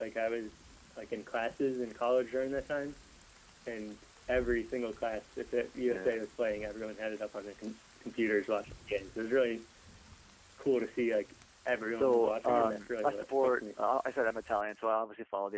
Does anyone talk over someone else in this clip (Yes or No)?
Yes